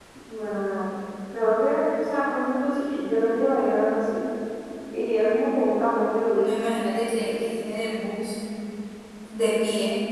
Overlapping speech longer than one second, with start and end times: none

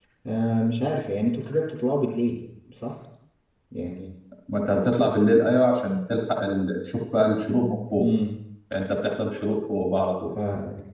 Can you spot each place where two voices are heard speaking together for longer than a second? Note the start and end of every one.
none

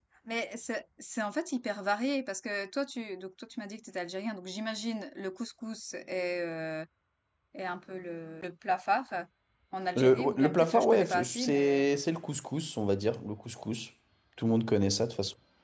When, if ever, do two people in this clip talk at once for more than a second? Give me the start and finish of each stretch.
9.9-11.8

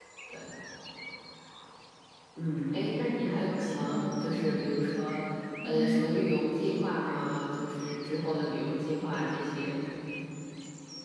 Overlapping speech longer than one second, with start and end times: 3.3-4.7

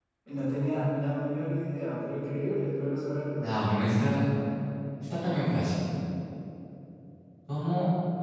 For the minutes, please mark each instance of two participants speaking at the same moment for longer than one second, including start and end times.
none

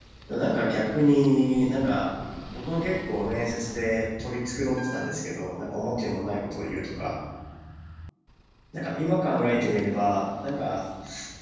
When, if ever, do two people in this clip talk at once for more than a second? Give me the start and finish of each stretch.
none

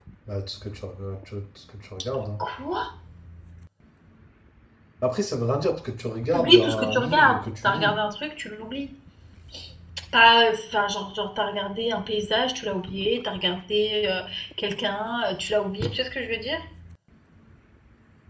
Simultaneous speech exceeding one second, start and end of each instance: 6.3-7.9

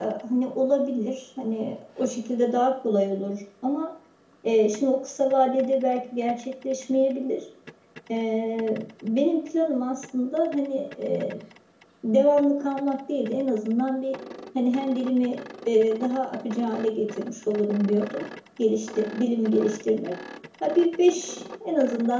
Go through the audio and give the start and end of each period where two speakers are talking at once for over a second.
none

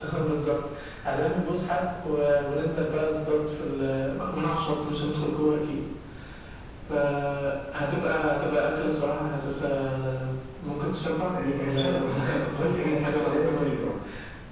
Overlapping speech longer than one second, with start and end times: 11.3-13.7

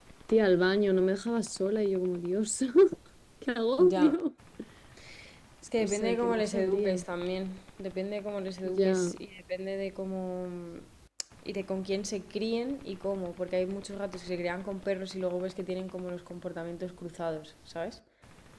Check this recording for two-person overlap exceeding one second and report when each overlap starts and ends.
5.8-7.0

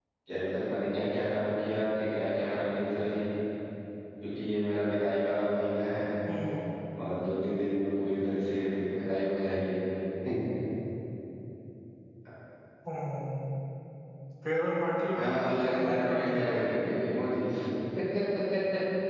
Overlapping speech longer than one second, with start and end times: 15.2-16.6

